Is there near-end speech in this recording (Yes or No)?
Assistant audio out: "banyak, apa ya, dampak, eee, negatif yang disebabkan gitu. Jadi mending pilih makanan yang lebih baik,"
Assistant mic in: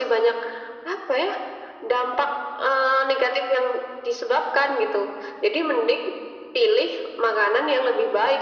No